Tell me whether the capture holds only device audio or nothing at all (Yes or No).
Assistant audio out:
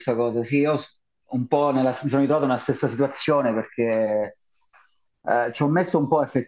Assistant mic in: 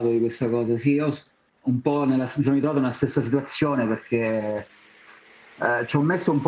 Yes